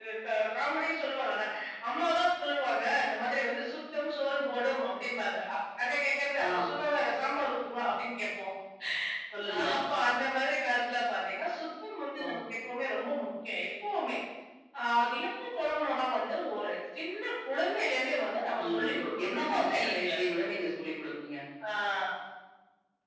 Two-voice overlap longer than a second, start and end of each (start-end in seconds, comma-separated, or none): 18.6-20.4